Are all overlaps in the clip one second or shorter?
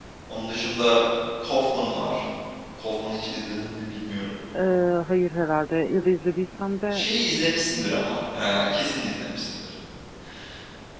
Yes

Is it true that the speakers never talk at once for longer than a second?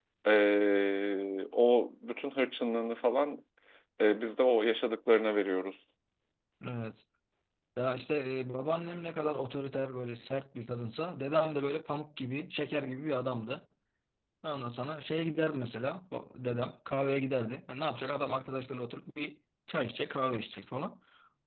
Yes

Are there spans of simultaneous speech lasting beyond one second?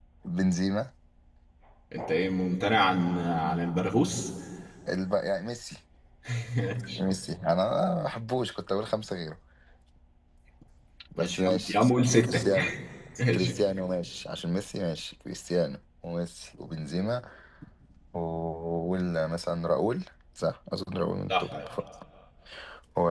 Yes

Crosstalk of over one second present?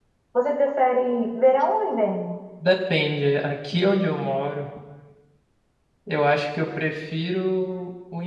No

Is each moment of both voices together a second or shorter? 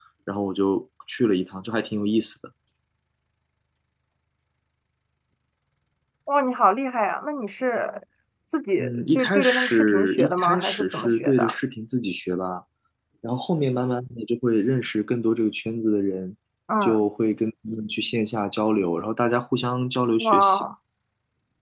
No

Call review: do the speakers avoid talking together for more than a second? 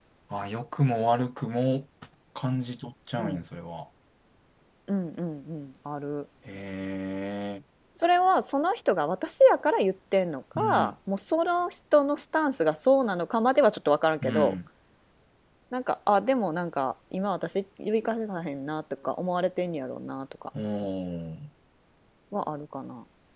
Yes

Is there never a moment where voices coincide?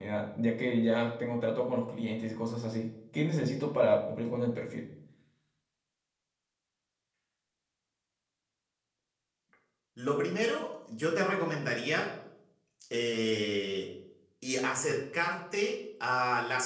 Yes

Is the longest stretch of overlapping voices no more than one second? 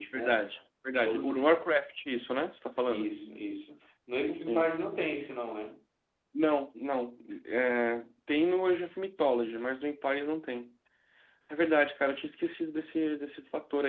Yes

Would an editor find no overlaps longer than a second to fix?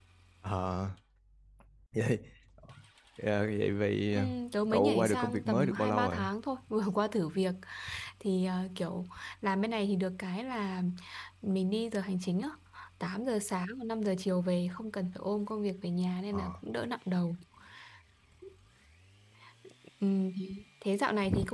No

